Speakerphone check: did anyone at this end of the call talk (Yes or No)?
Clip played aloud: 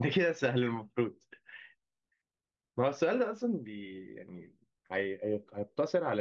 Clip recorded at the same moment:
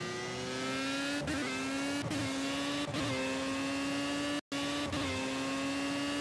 No